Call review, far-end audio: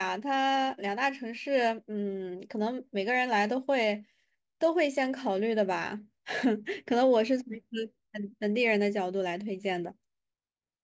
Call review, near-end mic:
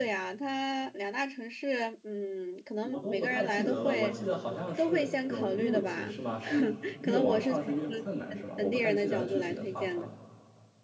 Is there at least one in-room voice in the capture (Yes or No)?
Yes